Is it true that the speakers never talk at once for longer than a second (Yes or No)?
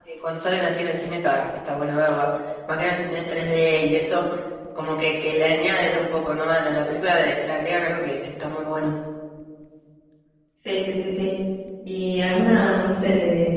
Yes